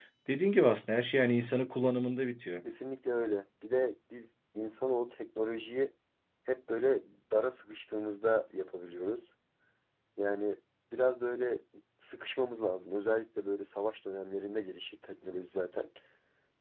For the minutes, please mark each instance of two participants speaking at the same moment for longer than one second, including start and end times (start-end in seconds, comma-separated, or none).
none